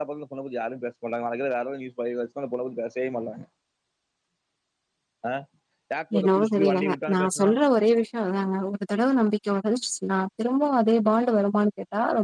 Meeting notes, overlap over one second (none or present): present